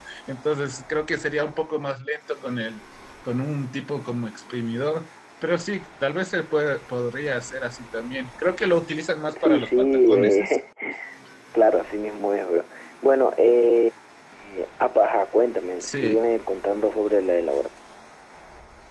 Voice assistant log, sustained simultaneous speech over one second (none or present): present